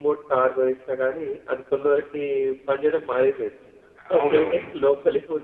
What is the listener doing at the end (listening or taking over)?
listening